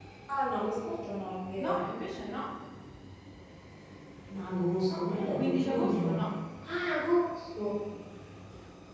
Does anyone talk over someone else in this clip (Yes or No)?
Yes